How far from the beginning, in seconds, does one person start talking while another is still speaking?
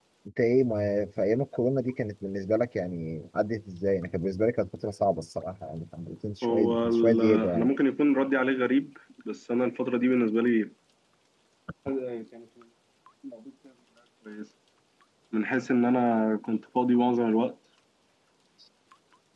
6 s

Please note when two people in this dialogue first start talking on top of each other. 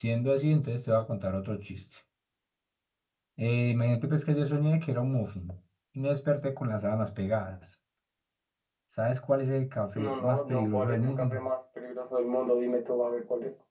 10 s

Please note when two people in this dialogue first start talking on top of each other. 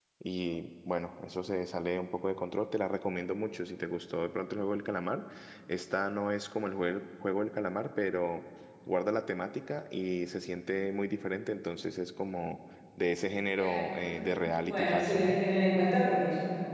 14 s

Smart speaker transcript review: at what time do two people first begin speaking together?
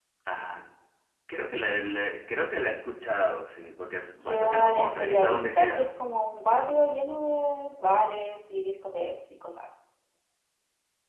4 s

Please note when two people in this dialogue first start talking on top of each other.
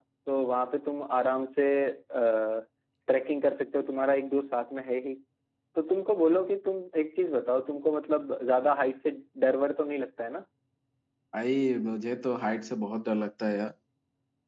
none

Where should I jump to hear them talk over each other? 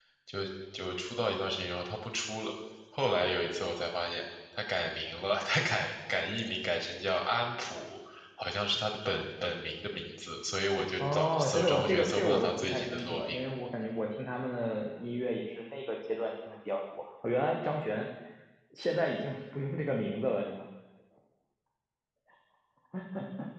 11 s

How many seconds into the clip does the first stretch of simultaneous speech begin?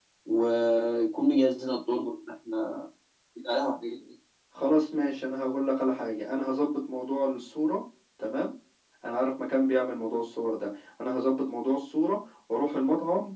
none

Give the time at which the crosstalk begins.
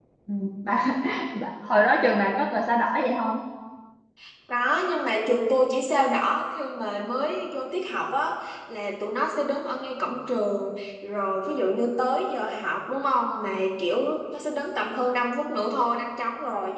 none

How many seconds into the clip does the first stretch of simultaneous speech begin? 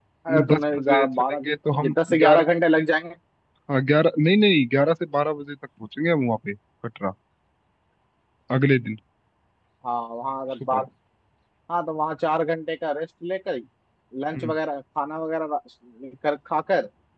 1 s

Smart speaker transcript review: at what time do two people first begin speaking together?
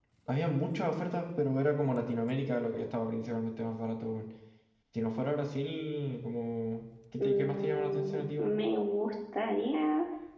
7 s

